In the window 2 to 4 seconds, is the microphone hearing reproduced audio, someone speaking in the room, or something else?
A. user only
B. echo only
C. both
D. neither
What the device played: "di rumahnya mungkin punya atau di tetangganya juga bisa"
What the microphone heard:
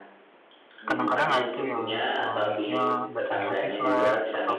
C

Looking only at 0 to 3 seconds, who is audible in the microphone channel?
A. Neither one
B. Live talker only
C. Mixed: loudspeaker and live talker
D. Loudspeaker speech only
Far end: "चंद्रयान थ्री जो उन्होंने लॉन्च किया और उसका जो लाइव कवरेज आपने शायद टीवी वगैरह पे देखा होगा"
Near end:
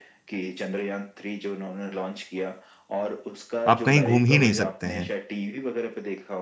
D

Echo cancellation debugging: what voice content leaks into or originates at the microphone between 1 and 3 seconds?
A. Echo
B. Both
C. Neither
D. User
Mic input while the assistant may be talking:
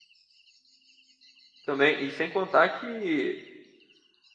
D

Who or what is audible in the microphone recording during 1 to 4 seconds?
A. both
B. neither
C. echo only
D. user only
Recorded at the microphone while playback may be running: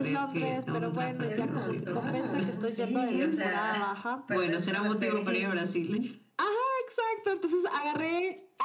A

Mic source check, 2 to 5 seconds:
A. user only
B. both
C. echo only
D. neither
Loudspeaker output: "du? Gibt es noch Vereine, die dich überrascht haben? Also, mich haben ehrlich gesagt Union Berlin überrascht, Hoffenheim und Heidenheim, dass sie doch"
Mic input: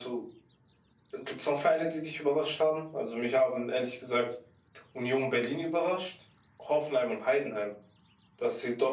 C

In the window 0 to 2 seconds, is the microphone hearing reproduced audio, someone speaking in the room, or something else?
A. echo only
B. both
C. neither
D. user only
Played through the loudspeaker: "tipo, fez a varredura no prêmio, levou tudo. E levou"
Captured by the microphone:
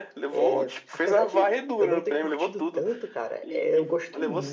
B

